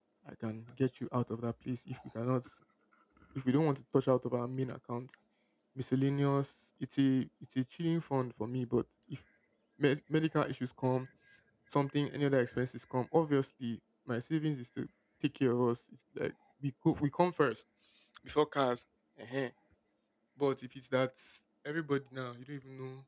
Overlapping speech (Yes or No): No